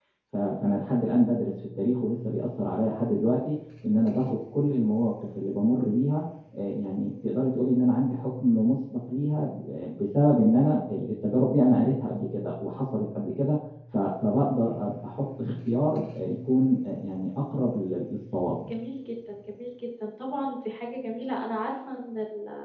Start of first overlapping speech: none

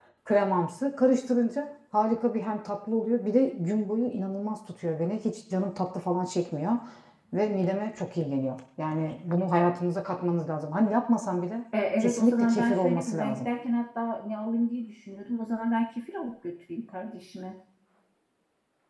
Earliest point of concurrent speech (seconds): 12.0 s

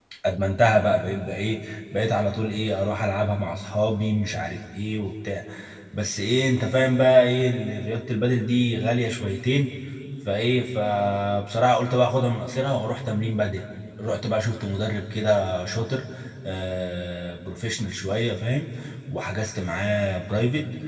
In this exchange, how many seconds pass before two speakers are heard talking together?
none

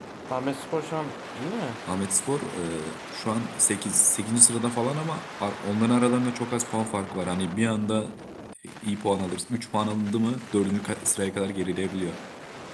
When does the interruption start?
none

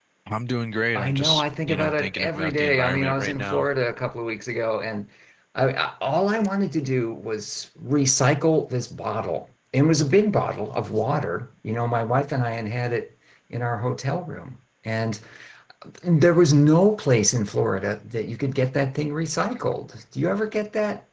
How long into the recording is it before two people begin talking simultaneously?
0.9 s

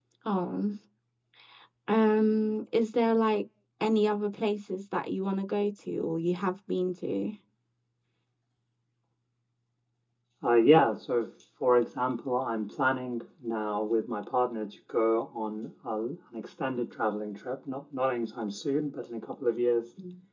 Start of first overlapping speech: none

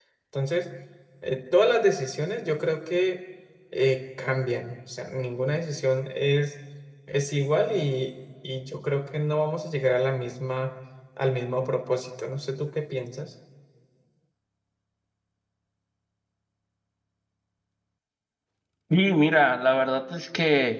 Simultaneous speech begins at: none

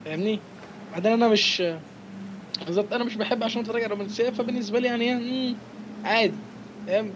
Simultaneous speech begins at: none

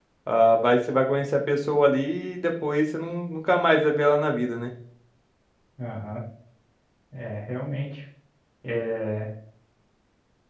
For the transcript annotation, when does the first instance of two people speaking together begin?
none

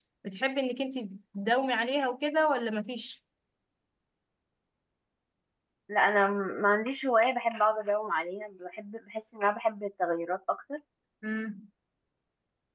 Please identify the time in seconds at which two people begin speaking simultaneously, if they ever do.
none

